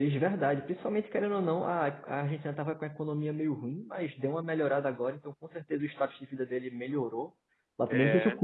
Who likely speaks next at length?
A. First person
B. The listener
A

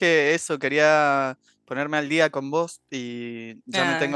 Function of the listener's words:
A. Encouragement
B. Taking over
A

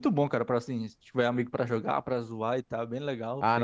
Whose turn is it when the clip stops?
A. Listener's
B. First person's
A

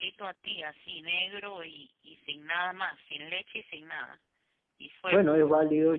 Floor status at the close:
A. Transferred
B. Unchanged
A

